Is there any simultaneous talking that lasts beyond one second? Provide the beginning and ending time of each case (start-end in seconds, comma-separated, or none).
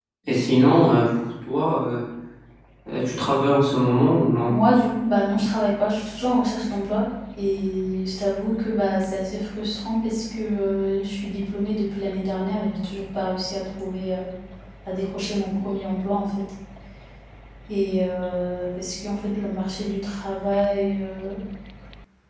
none